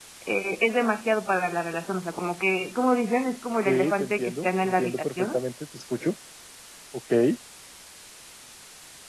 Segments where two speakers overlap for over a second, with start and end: 3.6-5.4

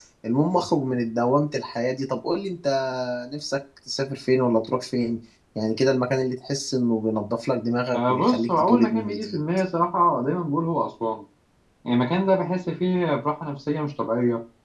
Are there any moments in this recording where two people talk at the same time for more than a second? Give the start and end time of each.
7.9-9.4

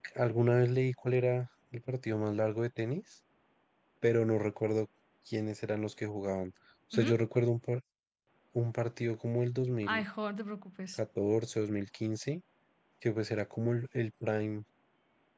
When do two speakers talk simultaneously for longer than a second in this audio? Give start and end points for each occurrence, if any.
none

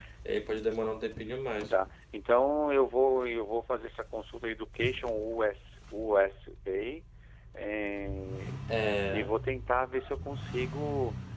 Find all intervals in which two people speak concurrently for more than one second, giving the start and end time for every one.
none

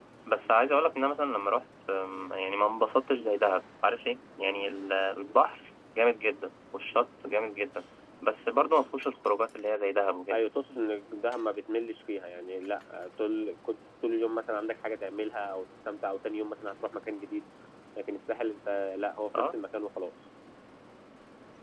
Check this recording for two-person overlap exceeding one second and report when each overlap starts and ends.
none

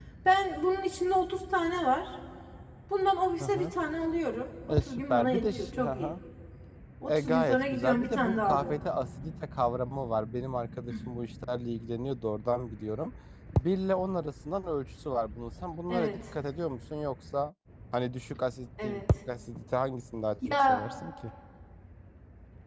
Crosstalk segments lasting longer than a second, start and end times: 4.7-6.1, 7.1-8.8

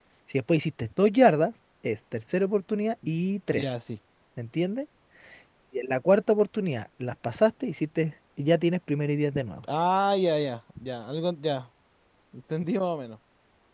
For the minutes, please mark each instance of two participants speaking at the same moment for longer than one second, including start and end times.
none

